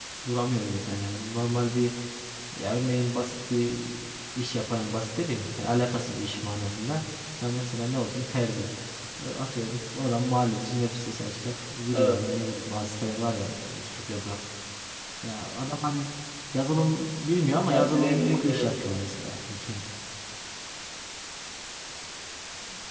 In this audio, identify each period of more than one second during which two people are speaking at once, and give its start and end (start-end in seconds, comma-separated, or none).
17.5-18.7